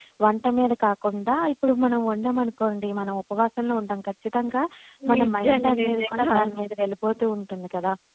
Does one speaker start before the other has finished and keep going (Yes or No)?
Yes